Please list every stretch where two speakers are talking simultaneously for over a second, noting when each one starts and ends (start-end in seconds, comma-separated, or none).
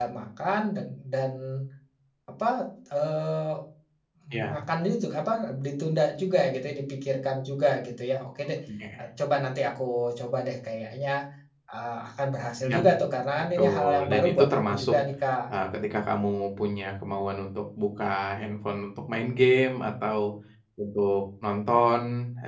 13.6-15.0